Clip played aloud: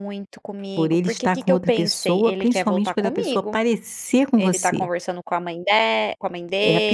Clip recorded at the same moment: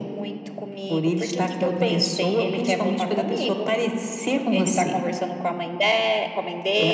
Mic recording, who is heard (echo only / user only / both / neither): echo only